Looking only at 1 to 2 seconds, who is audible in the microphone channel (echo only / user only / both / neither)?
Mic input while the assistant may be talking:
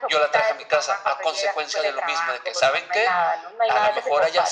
echo only